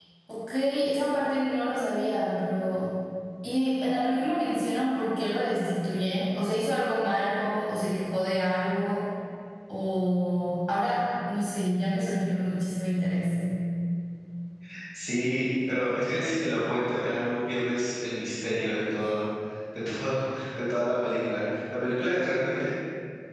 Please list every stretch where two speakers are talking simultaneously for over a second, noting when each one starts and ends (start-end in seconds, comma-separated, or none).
none